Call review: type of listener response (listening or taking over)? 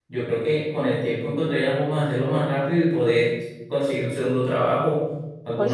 listening